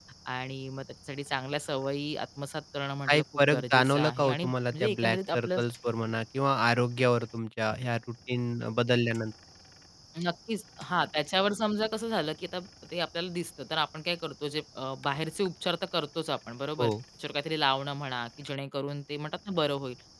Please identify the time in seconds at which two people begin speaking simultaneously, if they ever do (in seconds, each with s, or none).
3.1 s